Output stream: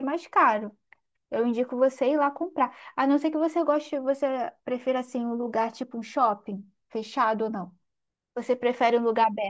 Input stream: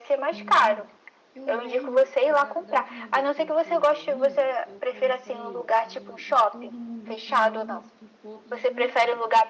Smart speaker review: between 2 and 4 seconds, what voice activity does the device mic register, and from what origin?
both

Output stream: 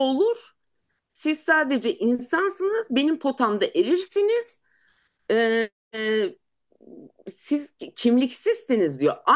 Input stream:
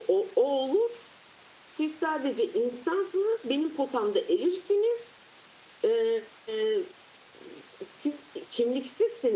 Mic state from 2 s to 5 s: echo only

